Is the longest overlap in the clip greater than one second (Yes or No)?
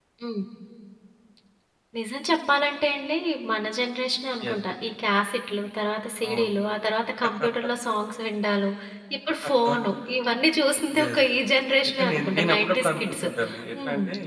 Yes